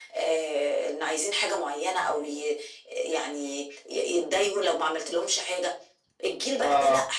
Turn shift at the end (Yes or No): No